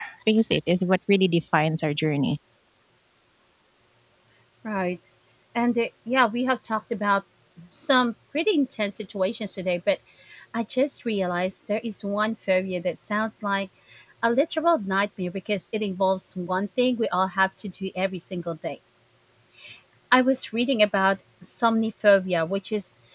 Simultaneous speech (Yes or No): No